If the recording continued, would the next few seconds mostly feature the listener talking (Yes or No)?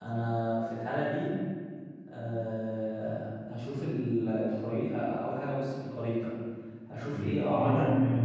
Yes